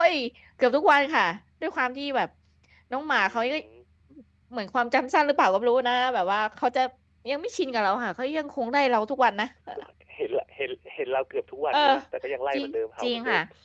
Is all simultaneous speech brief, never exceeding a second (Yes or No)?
Yes